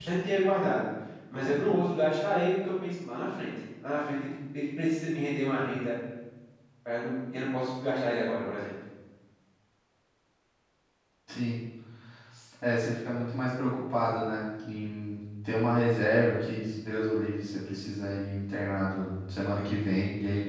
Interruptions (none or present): none